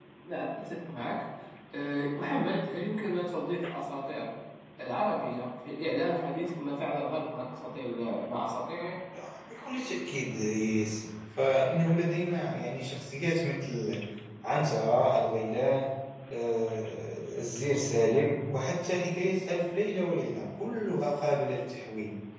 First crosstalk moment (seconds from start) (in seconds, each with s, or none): none